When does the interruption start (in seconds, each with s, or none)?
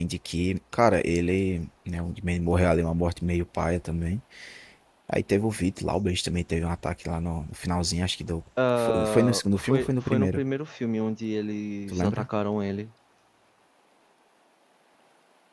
8.8 s